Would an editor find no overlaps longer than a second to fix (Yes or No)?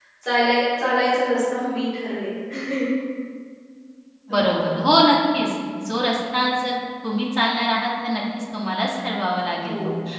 Yes